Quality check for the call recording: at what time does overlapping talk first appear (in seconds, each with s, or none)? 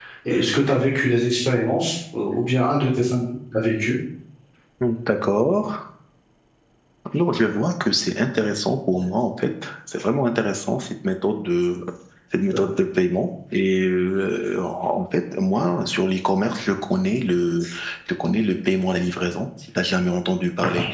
none